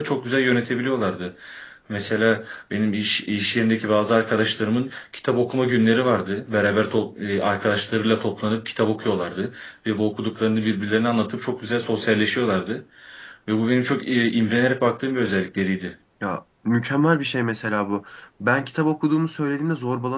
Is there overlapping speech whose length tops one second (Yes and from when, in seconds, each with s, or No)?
No